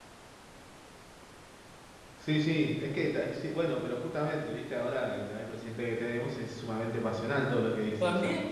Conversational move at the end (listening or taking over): taking over